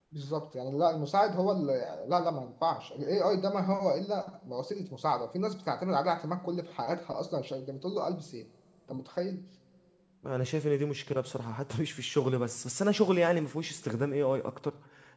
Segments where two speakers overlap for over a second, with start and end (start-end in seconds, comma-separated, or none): none